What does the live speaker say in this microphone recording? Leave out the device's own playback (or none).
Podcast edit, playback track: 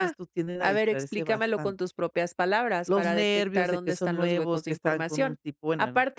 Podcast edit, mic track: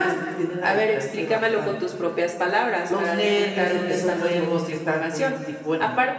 none